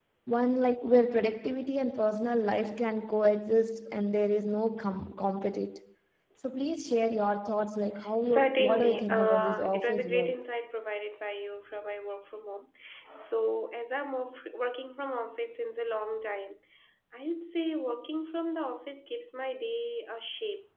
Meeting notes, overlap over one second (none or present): present